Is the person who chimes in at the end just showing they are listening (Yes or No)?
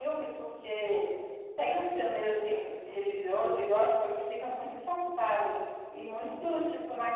Yes